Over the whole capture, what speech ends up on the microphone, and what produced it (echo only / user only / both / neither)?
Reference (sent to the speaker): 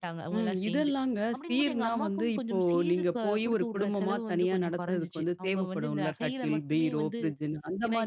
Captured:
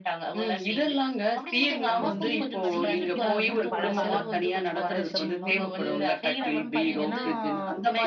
both